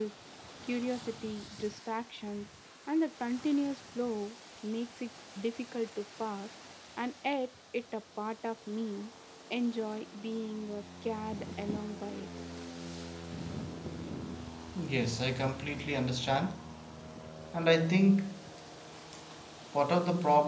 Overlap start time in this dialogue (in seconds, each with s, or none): none